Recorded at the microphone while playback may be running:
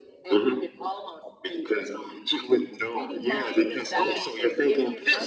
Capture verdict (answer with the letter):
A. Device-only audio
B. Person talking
B